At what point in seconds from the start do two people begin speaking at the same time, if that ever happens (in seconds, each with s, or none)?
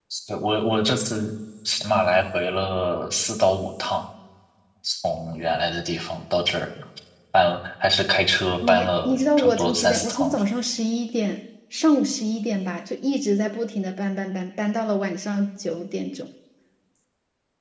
8.6 s